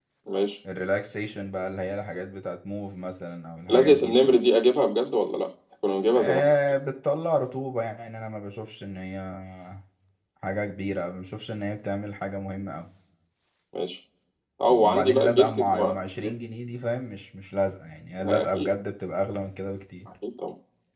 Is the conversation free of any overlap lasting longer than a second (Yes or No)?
No